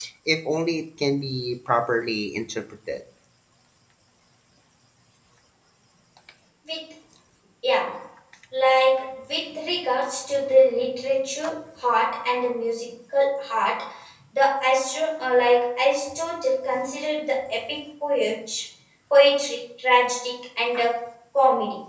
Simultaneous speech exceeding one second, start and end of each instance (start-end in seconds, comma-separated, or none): none